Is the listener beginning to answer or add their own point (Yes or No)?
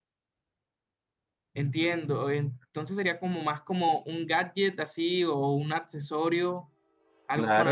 Yes